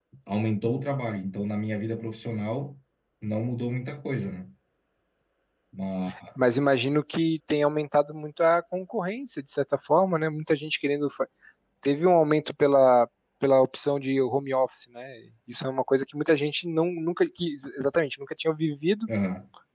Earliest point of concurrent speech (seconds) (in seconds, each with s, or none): none